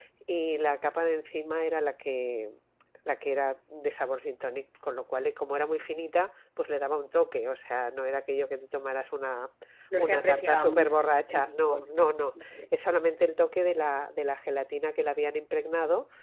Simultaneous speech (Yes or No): Yes